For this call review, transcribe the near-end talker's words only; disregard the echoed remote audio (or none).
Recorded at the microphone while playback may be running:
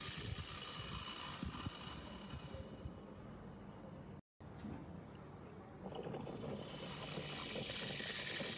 none